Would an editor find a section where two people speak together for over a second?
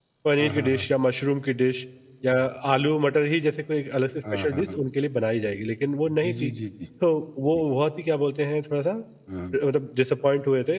No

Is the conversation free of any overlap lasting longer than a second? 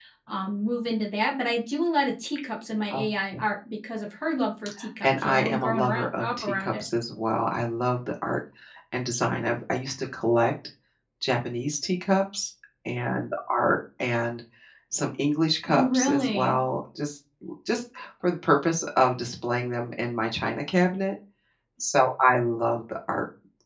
No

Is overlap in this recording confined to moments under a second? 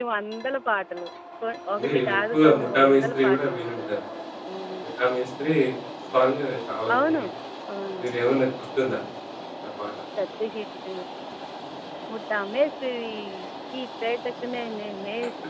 No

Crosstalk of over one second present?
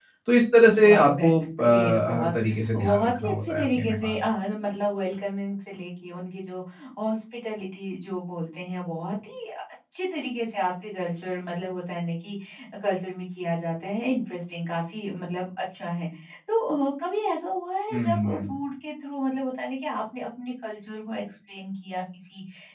Yes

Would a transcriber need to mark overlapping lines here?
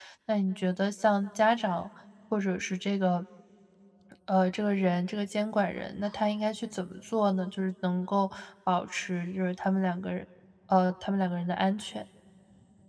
No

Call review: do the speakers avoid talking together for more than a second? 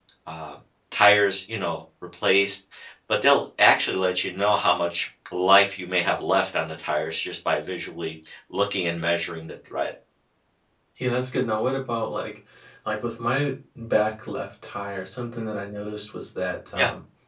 Yes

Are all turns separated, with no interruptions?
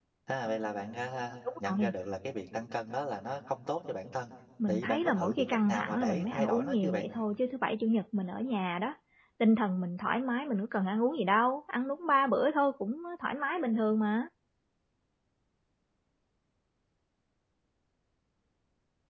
No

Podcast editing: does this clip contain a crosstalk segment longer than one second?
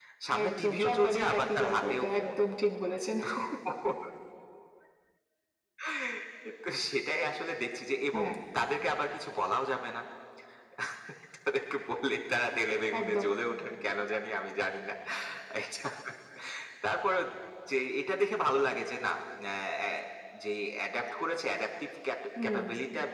Yes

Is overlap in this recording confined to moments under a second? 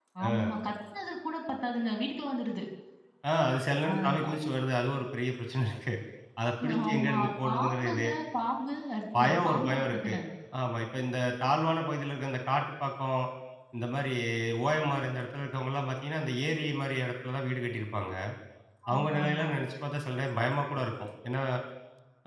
No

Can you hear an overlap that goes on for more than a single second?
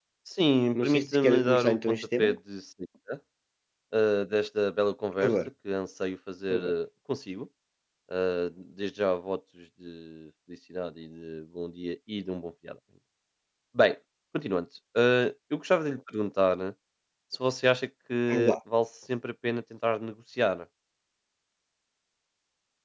Yes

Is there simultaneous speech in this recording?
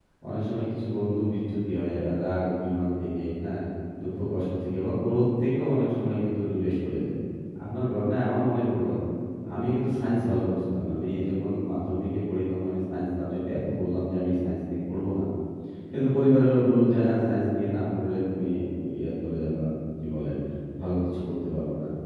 No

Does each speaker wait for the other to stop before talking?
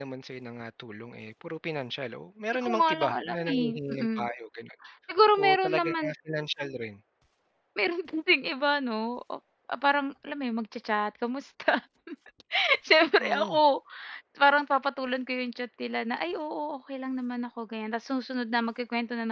No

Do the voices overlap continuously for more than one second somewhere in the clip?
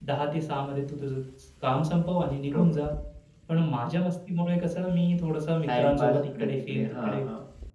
Yes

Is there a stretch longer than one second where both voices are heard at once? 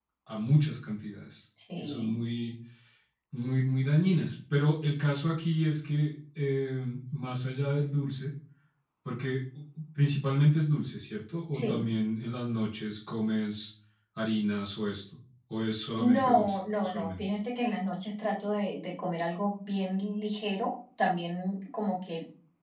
Yes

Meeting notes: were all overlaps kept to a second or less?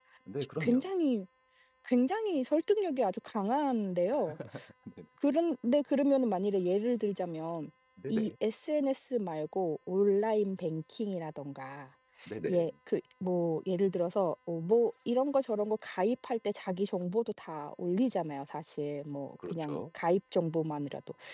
Yes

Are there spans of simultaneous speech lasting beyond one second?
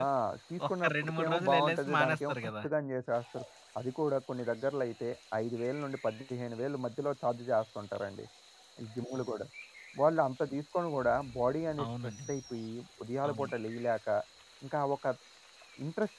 Yes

